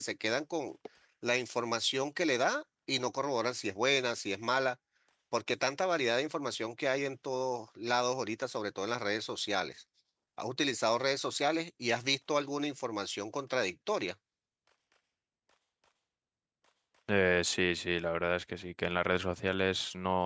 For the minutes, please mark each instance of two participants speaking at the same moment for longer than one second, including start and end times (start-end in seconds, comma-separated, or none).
none